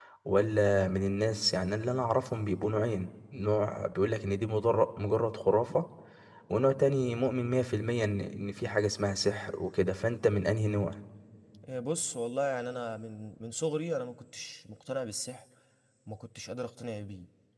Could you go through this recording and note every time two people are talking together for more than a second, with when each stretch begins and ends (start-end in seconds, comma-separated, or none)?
none